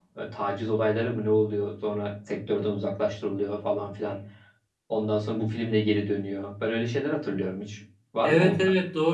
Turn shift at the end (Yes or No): Yes